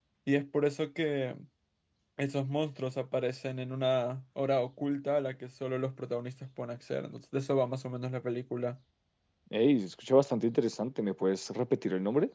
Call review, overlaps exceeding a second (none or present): none